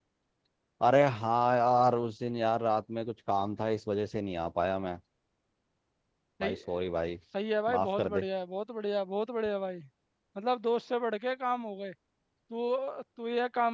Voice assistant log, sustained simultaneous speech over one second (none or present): none